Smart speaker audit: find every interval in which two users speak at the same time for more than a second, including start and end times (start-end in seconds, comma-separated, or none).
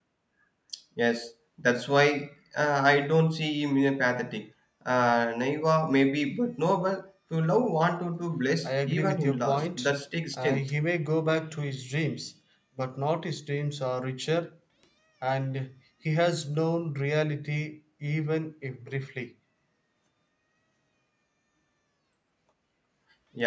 8.7-9.9